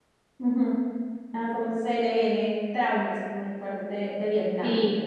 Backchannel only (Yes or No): No